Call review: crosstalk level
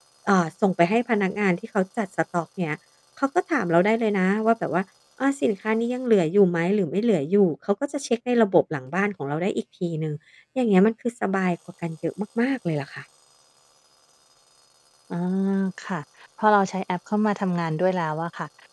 none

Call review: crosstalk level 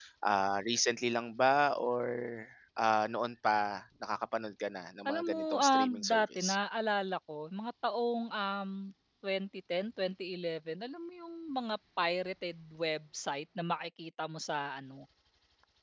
present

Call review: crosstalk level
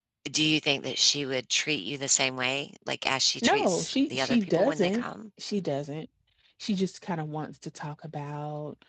present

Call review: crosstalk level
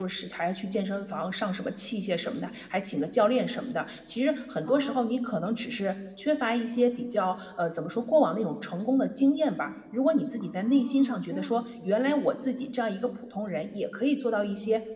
present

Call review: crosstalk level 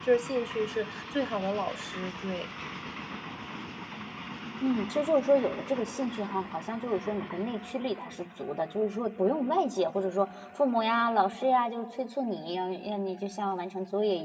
none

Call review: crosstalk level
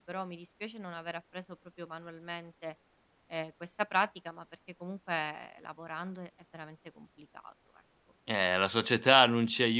none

